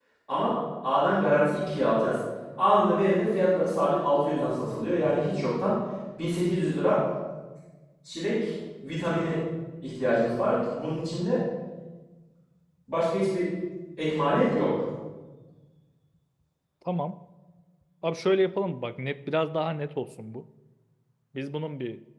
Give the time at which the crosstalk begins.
none

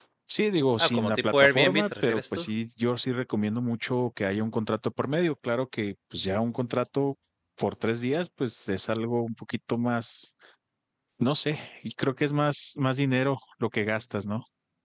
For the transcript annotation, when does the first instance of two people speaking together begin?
0.8 s

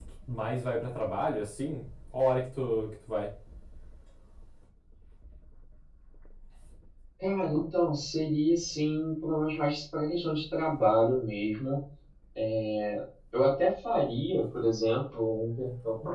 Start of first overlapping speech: none

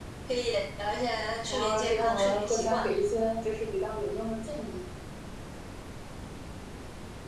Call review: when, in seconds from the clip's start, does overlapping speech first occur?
1.5 s

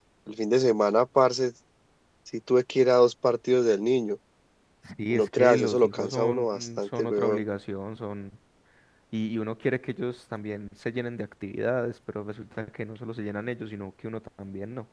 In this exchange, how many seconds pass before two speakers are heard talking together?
5.1 s

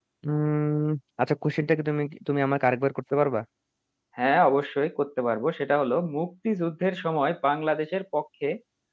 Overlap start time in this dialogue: none

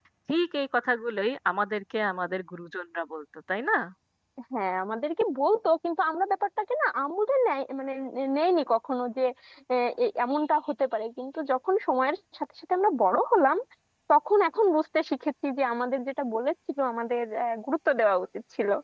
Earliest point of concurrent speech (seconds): none

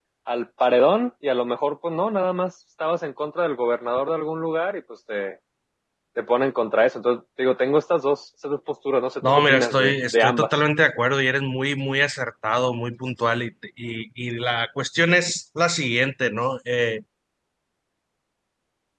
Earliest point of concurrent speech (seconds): 9.2 s

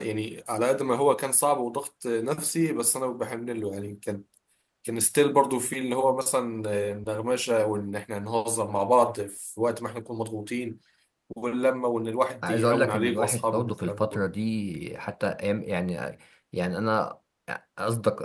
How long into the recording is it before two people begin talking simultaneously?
12.4 s

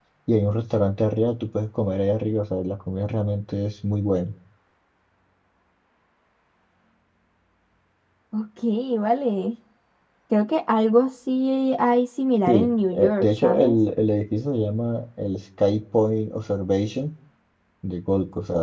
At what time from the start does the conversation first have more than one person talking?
12.5 s

